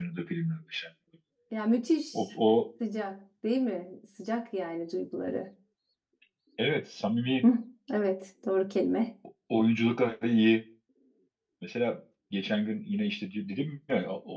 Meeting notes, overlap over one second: none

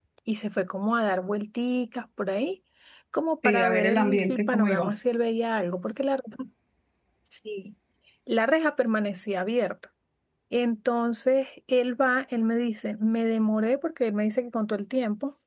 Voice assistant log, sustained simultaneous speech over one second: present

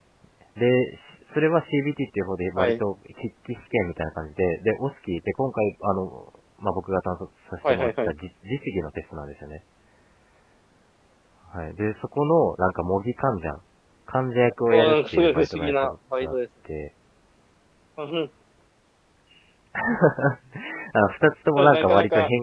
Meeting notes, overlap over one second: present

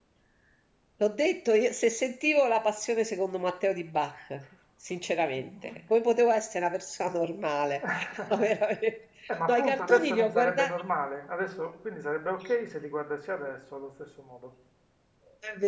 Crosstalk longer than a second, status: present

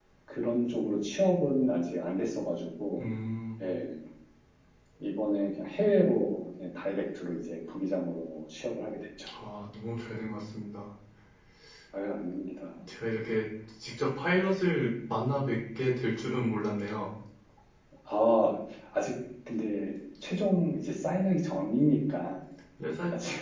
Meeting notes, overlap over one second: none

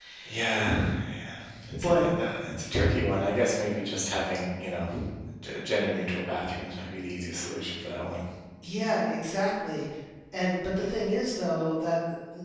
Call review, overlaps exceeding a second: none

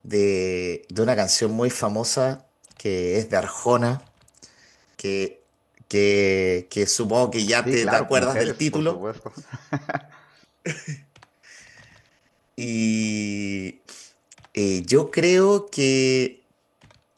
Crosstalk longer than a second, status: present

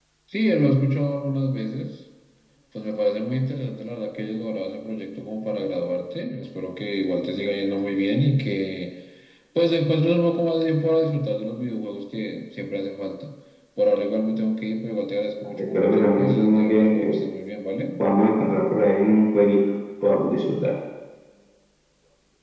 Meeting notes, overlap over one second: present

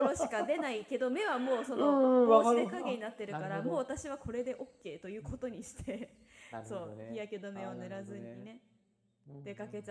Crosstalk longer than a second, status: present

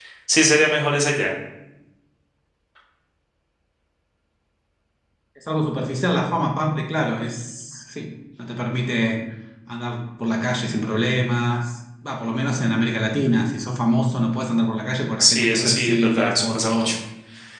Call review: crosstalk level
present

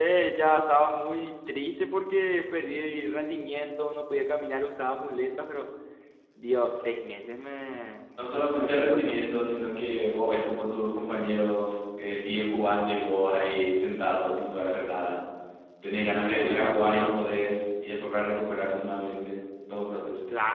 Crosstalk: present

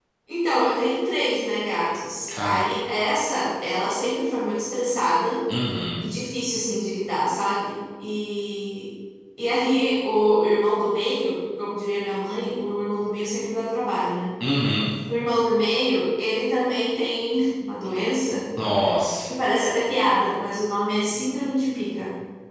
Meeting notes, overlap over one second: none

